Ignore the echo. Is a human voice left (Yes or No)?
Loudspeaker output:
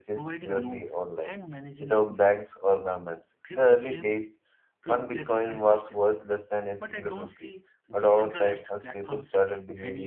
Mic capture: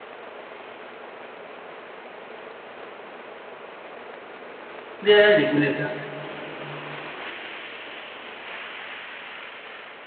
Yes